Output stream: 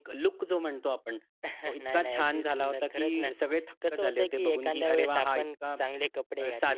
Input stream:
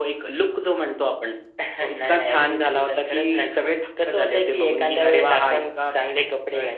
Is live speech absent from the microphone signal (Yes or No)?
Yes